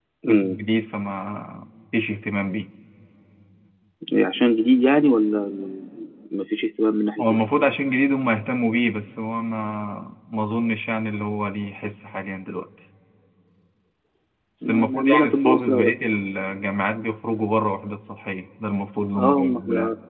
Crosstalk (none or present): present